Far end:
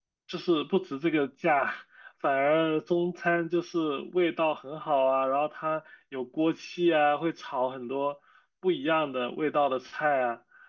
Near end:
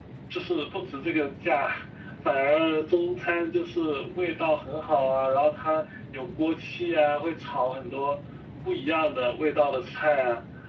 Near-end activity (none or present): none